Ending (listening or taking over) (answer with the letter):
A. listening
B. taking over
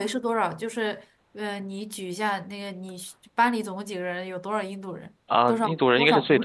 B